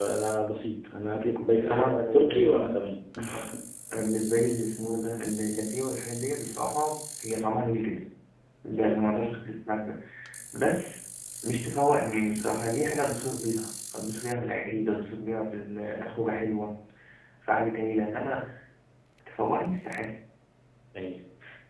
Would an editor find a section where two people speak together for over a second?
Yes, from 1.5 s

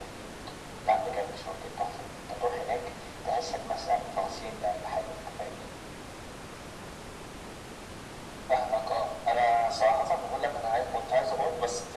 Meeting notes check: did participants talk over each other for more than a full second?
No

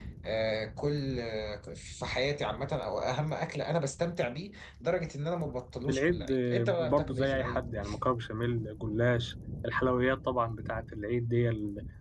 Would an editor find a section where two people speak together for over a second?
Yes, from 5.9 s

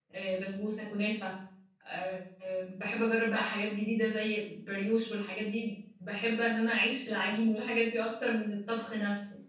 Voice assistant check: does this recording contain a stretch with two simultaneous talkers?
No

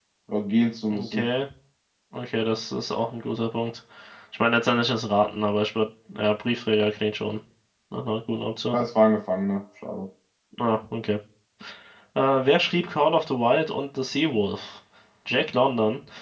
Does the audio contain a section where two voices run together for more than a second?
No

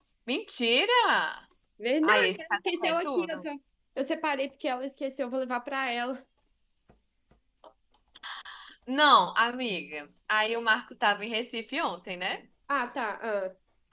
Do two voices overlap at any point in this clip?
Yes, from 2.0 s

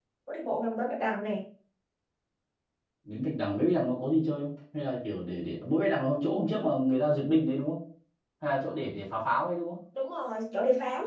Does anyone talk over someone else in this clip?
No

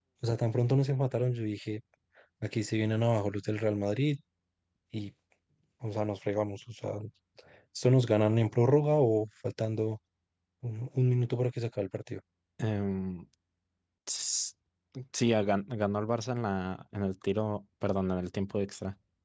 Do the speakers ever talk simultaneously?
No

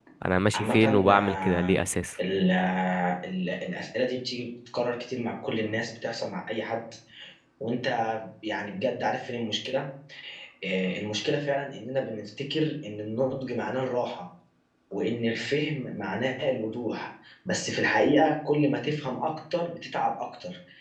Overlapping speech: Yes, from 0.5 s

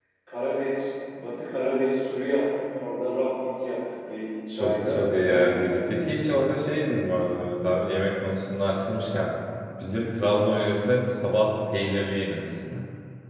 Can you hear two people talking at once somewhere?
Yes, from 4.6 s

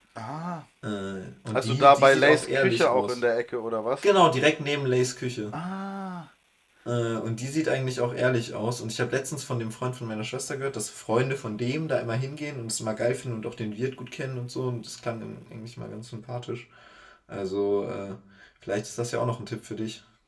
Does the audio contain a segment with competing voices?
Yes, from 1.5 s

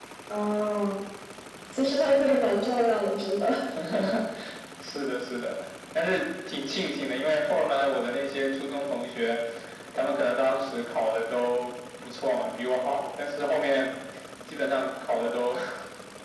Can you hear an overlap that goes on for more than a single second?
No

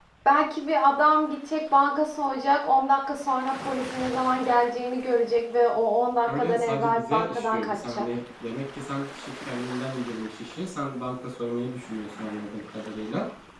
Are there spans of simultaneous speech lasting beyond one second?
Yes, from 6.3 s

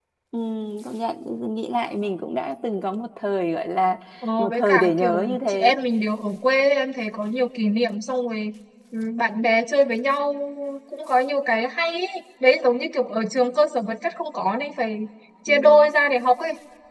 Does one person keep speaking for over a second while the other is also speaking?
Yes, from 4.4 s

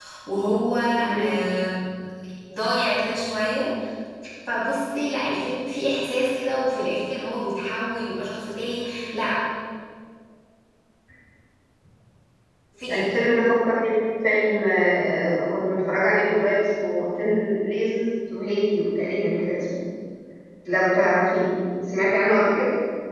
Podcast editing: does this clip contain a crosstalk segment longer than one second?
No

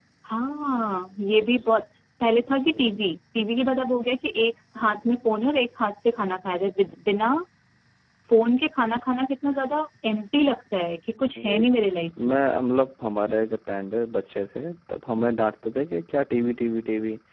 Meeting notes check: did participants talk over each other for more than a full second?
No

